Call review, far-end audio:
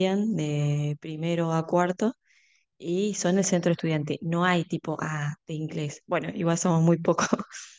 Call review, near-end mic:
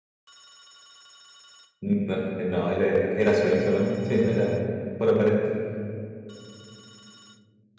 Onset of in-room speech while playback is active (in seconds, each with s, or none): 1.8 s